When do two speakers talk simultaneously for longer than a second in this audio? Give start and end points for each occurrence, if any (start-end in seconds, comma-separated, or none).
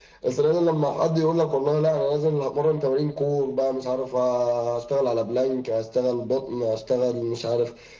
none